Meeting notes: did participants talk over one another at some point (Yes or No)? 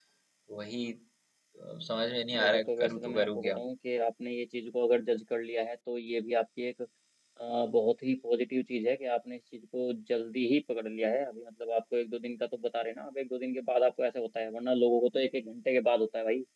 Yes